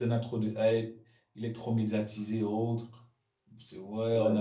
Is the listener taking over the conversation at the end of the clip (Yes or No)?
No